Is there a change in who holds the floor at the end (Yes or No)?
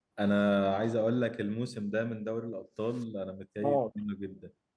No